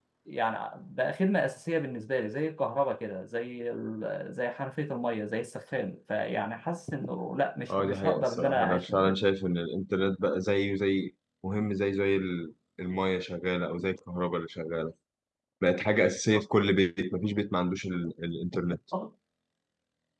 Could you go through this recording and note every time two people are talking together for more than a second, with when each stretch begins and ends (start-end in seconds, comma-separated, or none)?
7.7-9.2